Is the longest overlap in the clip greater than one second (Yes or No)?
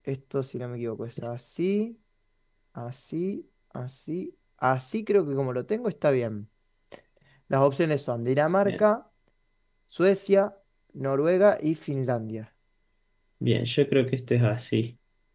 No